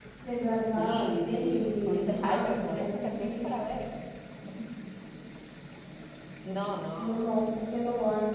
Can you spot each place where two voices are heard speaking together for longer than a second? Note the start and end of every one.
0.8-3.4

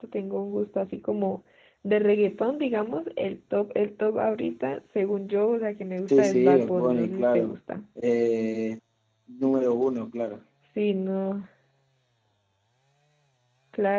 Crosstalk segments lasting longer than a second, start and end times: 6.1-7.6

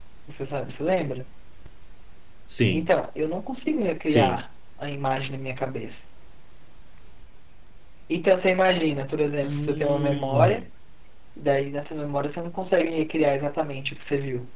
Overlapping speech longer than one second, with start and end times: 9.4-10.6

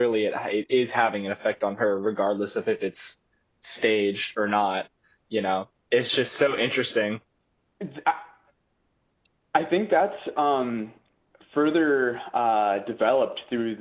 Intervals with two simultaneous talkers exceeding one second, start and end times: none

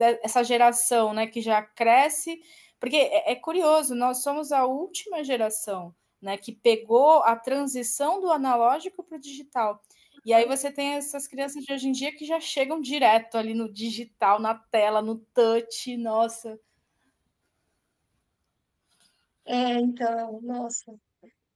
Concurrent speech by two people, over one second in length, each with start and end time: none

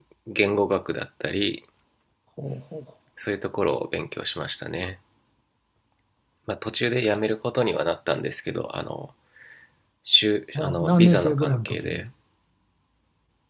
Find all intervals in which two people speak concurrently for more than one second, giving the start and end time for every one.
10.6-12.1

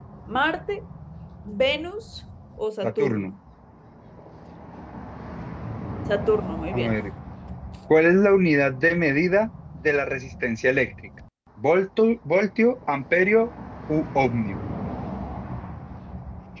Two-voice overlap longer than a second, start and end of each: none

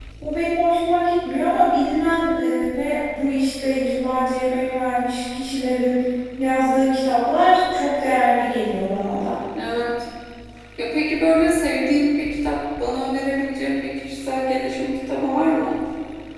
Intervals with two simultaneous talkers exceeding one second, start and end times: none

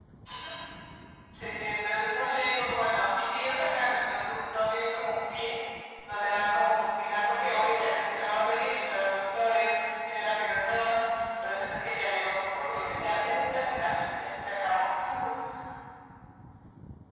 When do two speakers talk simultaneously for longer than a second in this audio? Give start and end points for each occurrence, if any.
12.5-13.8

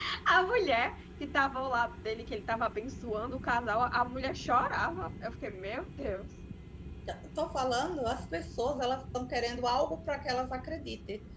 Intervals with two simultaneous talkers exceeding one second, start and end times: none

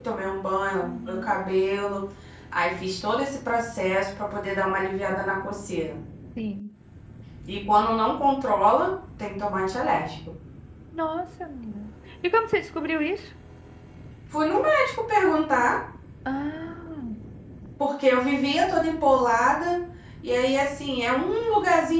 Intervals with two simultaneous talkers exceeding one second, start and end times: none

